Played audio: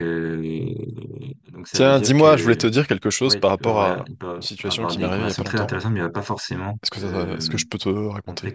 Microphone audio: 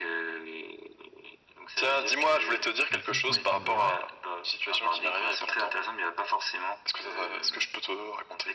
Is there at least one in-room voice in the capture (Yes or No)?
Yes